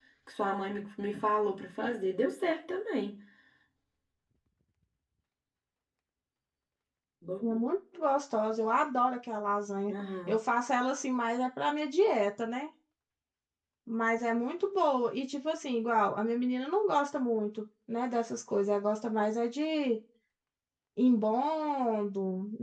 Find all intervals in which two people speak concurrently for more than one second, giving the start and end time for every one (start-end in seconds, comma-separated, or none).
none